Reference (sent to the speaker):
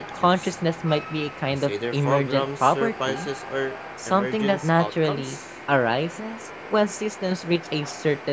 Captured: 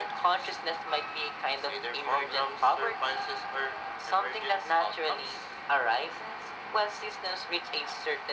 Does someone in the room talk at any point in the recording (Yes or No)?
No